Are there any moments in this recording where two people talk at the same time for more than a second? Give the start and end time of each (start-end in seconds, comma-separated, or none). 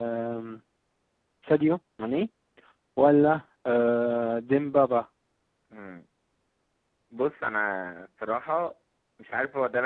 none